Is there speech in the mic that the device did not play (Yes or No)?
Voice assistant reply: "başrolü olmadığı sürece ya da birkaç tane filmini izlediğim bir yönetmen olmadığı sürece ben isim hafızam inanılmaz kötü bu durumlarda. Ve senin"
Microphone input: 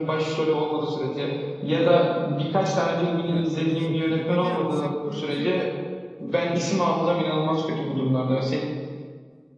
Yes